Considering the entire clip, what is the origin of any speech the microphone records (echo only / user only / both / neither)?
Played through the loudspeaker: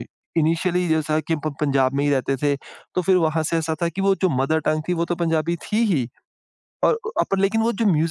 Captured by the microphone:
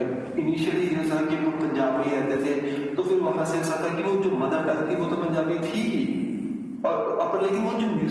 echo only